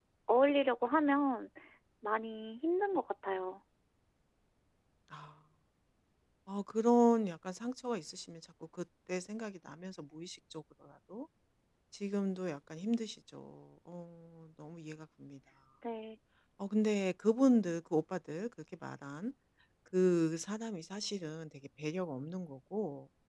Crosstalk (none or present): none